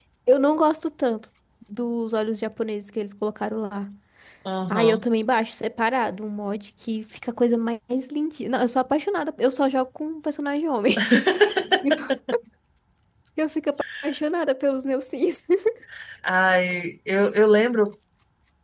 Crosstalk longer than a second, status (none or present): none